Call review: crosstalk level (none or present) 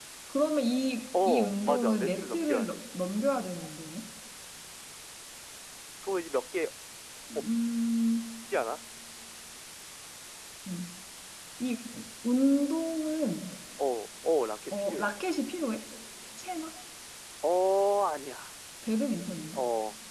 present